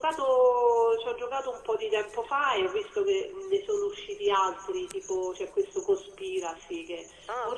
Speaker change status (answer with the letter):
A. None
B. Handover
A